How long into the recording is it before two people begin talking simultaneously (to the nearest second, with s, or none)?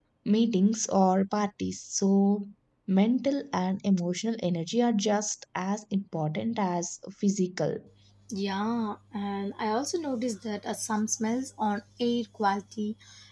none